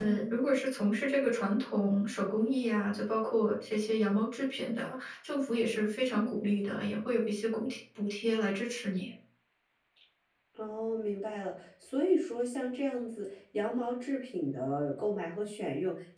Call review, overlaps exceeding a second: none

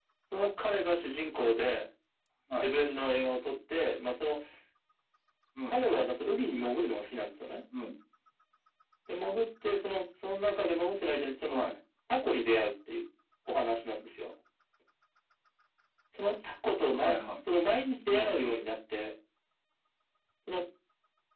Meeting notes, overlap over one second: none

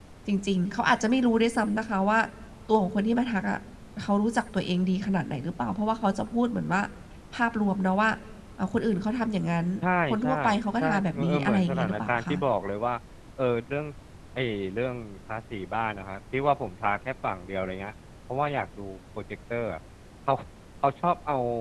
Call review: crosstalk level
present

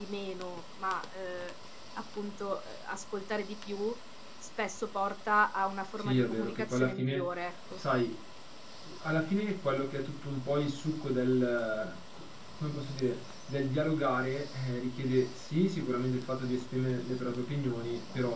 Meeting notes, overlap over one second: present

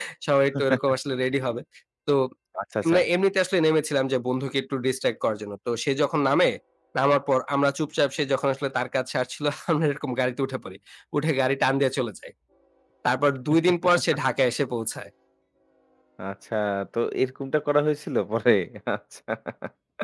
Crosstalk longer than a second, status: none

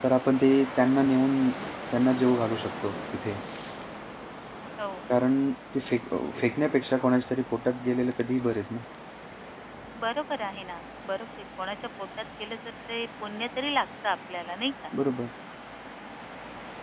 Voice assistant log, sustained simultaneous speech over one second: none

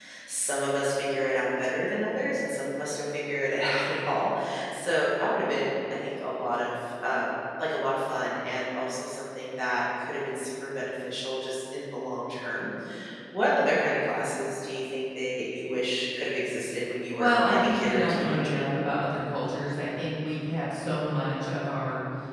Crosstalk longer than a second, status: present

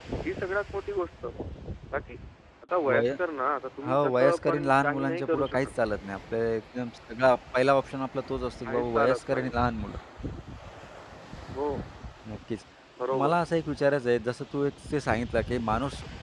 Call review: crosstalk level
present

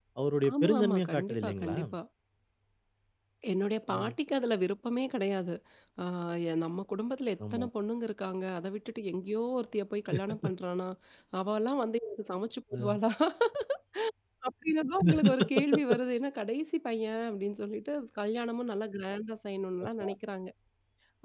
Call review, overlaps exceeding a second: present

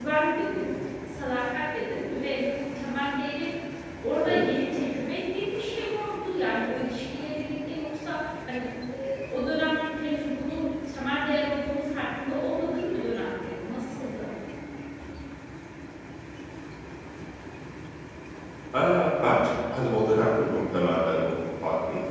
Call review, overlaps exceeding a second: none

